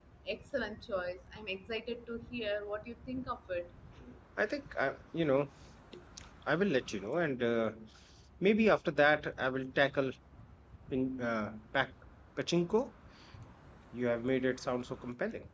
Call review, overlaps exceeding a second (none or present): none